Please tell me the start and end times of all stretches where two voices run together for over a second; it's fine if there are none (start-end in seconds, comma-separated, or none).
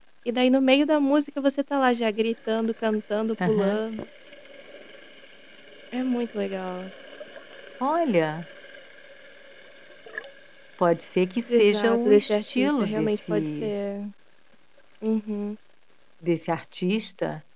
11.5-13.7